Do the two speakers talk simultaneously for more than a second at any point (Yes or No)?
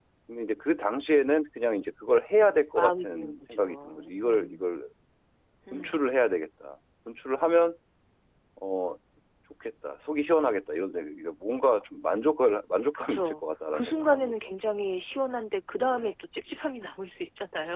Yes